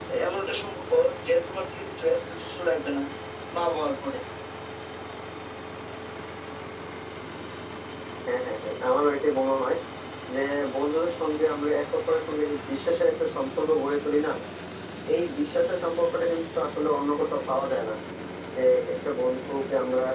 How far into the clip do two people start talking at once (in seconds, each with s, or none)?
none